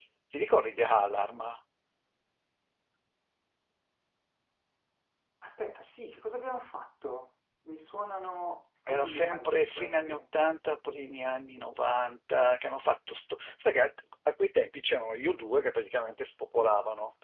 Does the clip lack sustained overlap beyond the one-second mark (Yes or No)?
No